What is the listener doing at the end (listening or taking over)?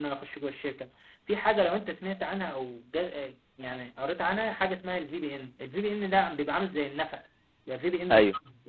listening